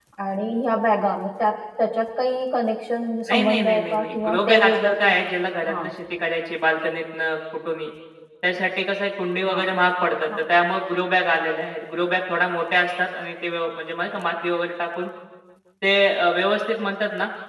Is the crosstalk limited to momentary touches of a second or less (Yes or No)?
No